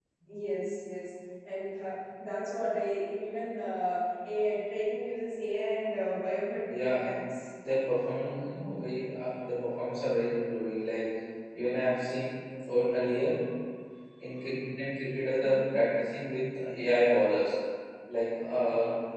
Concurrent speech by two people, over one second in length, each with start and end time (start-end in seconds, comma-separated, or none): none